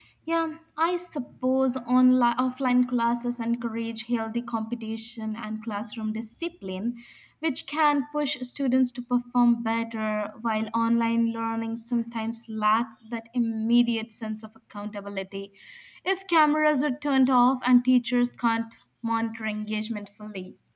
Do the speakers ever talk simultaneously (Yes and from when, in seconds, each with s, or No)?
No